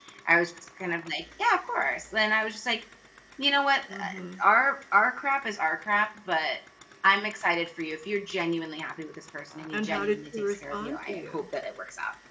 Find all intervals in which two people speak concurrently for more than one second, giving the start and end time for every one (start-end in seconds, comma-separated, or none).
9.7-11.4